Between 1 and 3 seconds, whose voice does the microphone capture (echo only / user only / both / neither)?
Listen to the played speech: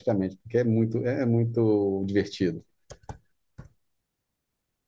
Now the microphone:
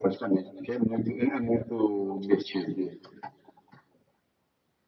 echo only